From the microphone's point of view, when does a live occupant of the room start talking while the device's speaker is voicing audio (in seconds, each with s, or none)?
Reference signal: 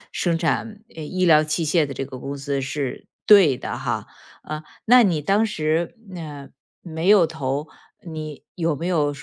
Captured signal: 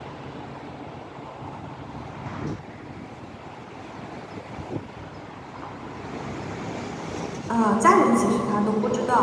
7.5 s